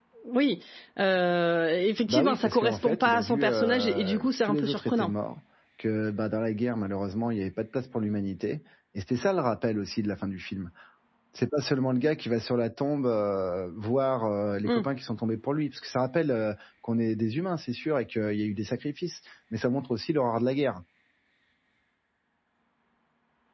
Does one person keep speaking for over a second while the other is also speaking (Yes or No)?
Yes